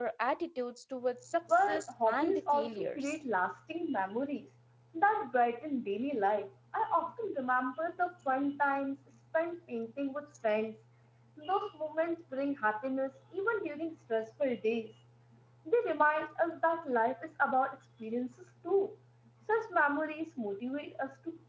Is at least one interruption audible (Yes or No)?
Yes